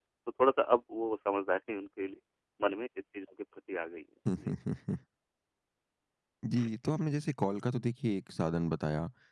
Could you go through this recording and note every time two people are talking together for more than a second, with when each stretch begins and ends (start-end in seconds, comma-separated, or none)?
none